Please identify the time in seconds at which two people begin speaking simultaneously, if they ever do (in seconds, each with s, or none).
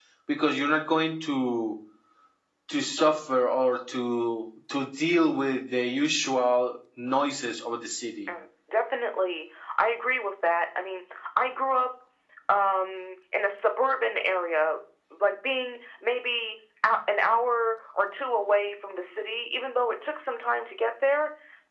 none